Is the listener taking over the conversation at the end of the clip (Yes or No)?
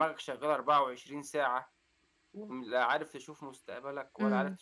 Yes